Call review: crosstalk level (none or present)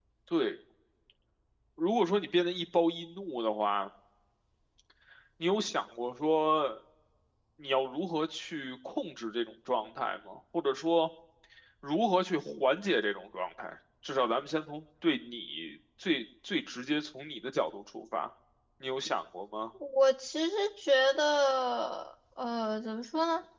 none